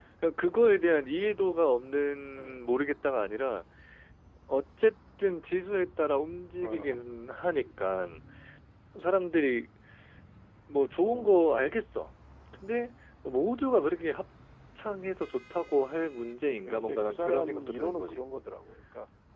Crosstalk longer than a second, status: present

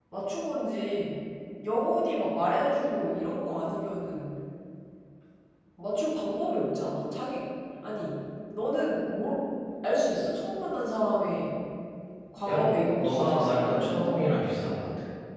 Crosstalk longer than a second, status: present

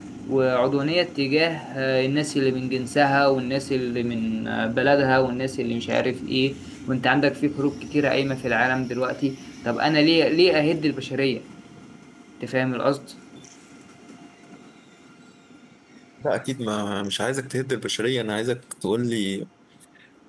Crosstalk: none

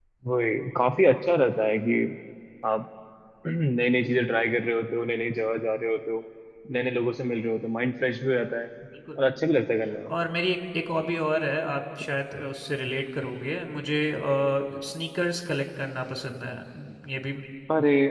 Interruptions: none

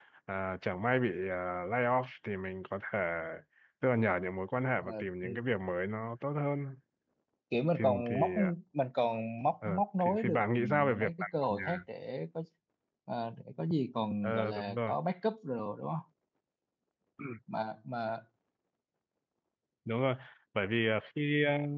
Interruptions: present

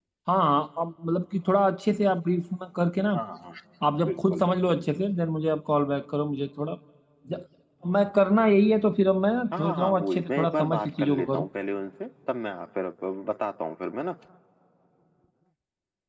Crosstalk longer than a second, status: present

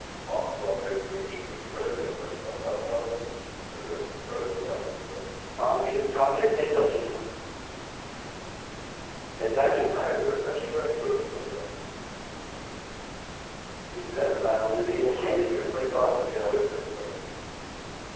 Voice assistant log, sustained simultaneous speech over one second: present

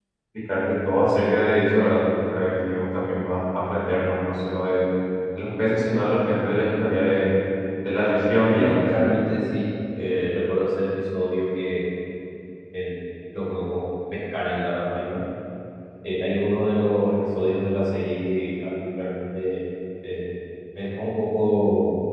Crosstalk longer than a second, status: none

